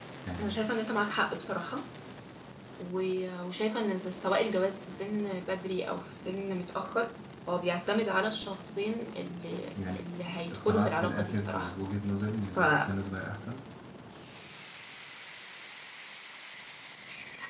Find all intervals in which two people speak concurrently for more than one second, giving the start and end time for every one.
10.5-11.7

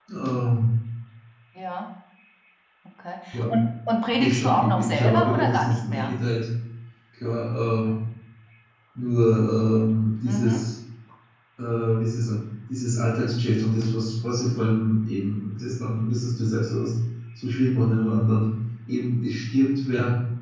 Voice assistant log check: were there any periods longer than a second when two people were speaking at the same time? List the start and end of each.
4.1-6.1

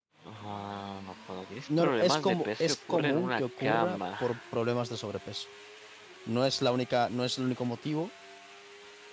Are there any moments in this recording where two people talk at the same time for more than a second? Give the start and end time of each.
1.8-4.2

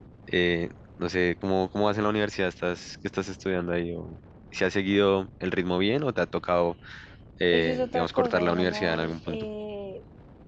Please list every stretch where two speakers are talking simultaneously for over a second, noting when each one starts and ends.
7.5-9.5

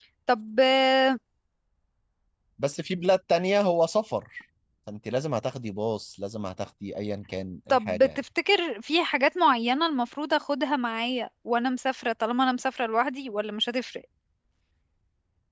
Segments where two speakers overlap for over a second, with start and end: none

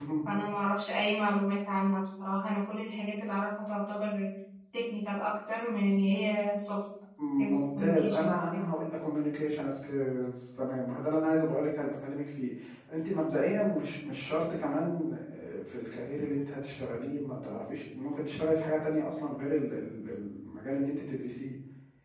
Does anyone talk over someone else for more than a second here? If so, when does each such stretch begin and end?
7.2-8.7

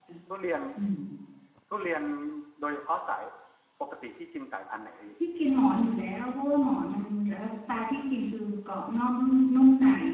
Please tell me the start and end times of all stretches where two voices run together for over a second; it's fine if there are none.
none

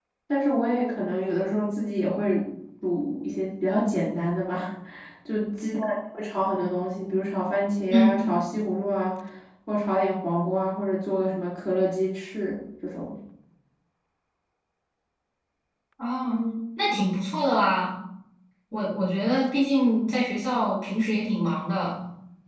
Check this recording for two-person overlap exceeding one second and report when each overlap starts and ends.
none

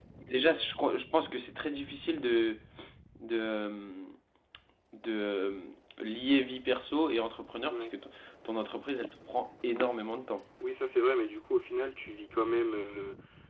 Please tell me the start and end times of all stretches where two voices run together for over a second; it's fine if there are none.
none

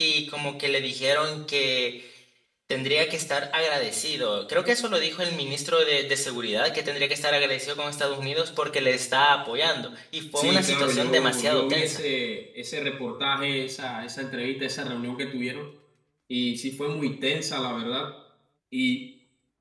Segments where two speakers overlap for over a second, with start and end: 10.3-12.0

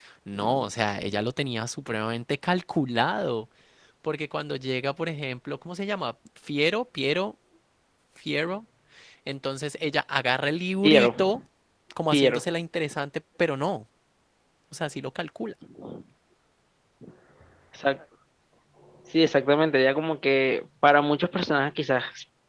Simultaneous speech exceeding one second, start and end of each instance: none

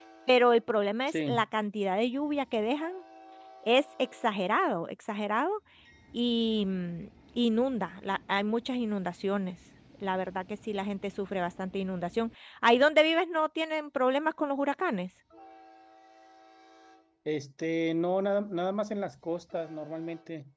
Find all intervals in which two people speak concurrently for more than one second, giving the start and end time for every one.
none

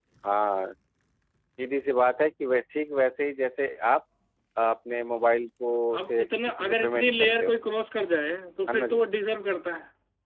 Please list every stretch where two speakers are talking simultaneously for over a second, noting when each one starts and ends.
6.0-7.5

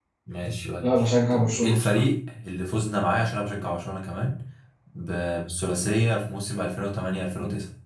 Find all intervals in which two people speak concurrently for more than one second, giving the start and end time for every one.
0.8-2.0

